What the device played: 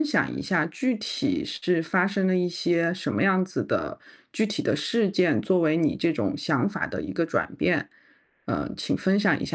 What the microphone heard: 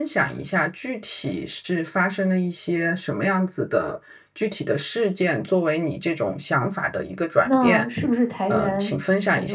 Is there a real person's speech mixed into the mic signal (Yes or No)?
Yes